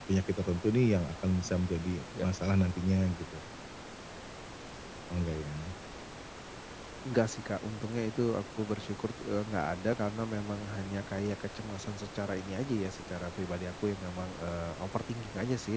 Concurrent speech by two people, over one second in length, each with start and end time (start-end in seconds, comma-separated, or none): none